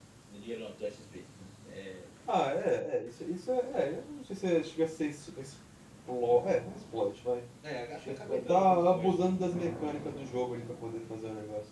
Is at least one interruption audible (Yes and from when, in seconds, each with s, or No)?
Yes, from 8.0 s